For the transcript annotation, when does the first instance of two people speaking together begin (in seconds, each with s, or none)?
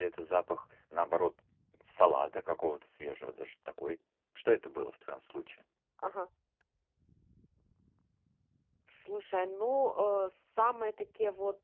none